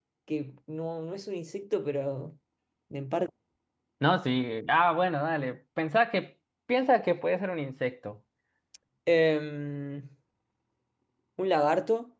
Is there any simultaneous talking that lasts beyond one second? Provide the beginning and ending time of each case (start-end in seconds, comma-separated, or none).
none